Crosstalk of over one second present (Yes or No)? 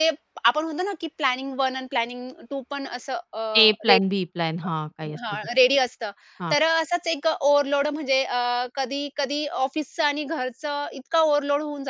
No